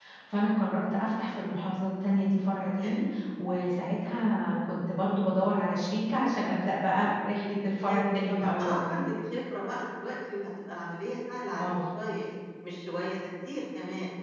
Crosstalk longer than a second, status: present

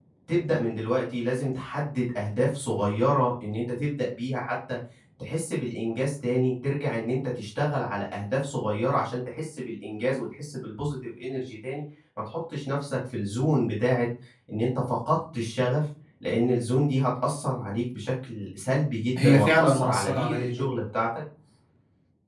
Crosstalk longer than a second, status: present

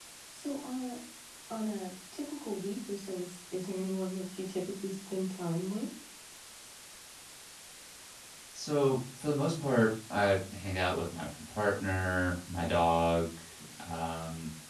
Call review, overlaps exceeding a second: none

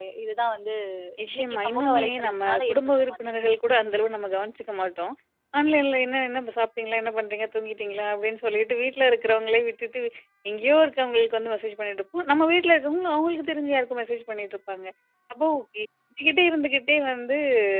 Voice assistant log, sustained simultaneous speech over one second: present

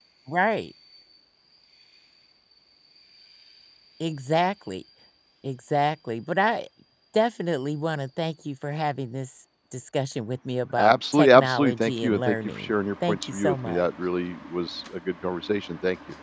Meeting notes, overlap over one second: present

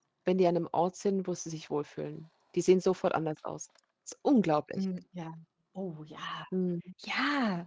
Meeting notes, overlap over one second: none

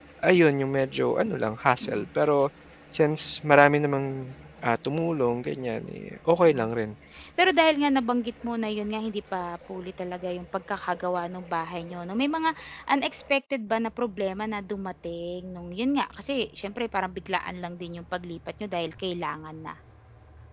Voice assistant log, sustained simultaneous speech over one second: none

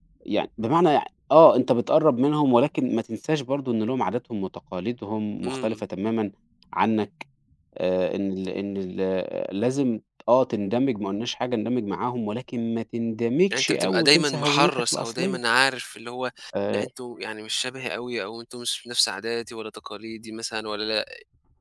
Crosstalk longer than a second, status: present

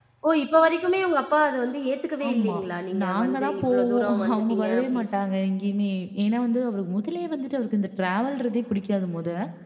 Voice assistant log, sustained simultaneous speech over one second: present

